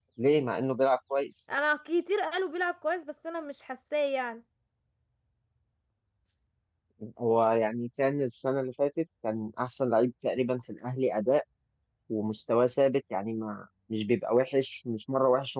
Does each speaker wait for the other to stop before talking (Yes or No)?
Yes